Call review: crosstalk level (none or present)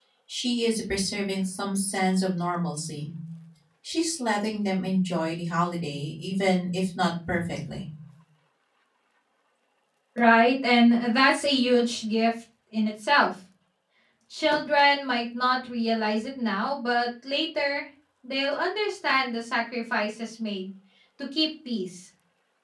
none